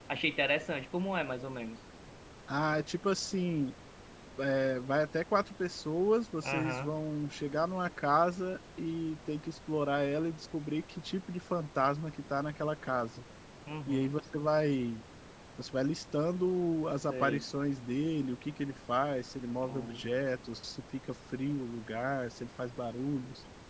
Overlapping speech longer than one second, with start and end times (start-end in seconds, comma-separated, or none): none